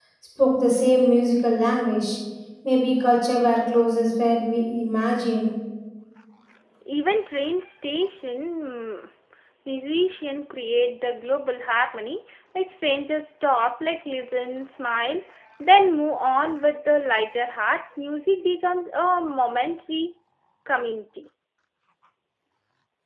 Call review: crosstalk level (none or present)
none